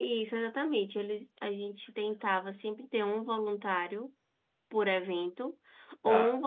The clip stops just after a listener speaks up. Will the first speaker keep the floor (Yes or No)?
Yes